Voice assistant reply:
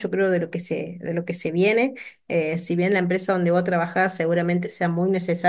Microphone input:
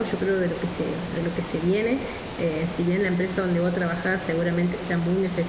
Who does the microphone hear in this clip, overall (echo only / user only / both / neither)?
echo only